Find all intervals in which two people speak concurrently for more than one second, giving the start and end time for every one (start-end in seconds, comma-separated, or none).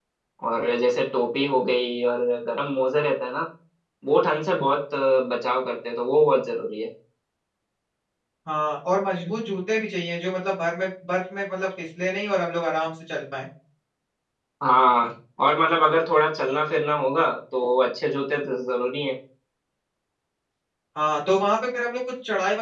none